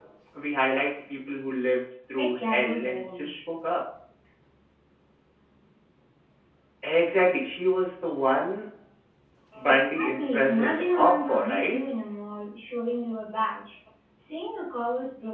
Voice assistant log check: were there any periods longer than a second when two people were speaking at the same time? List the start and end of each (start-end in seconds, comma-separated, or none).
2.2-3.4, 9.6-11.9